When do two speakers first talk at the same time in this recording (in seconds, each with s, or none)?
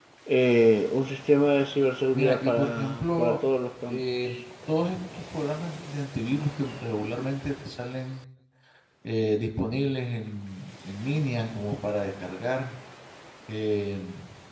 2.1 s